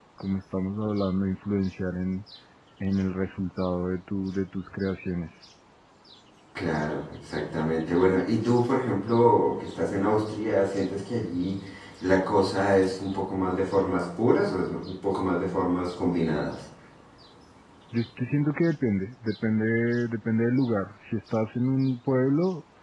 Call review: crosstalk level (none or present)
none